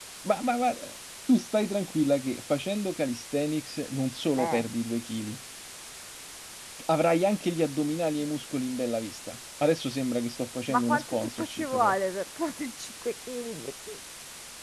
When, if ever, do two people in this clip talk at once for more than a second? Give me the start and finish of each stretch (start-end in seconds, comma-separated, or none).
10.7-11.9